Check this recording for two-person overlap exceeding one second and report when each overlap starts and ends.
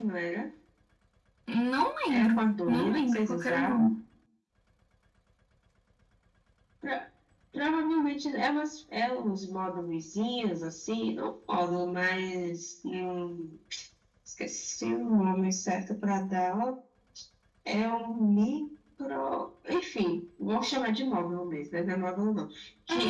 2.1-3.9

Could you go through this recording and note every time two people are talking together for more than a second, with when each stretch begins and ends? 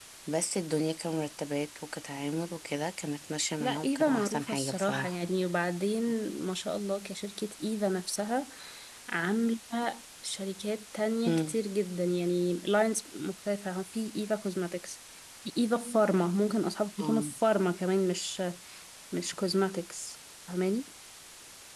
3.6-5.2

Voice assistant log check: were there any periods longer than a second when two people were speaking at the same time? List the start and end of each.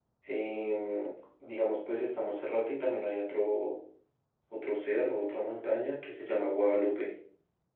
none

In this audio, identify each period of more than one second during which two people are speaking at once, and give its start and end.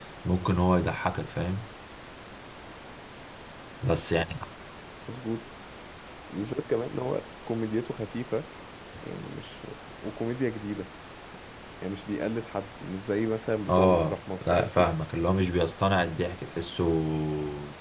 13.7-14.9

